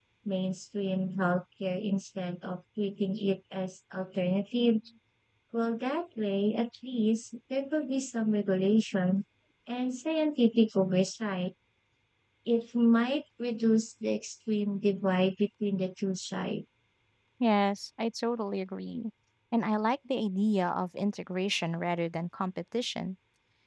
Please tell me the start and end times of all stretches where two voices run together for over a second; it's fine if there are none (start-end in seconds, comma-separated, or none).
none